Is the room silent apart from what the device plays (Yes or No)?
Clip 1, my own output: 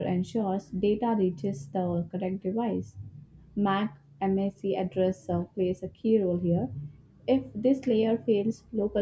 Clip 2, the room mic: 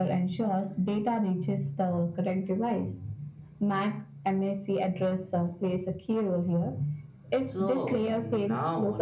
No